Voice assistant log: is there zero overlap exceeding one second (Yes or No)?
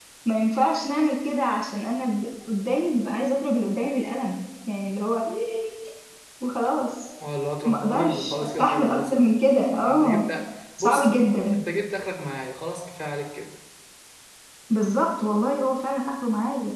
No